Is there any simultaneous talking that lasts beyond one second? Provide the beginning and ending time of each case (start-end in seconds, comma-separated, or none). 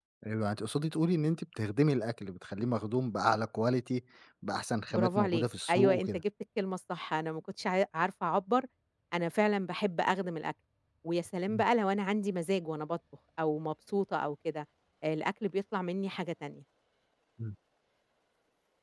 4.9-6.2